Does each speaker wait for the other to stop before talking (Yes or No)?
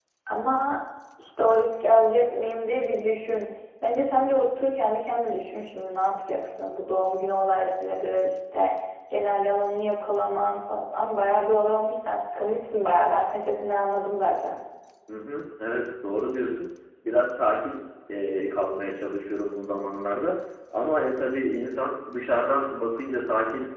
Yes